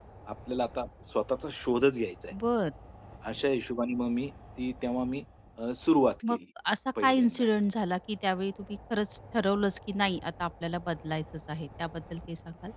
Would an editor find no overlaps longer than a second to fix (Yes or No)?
Yes